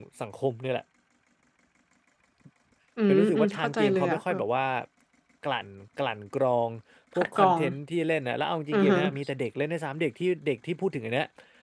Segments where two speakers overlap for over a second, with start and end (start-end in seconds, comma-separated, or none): 3.1-4.4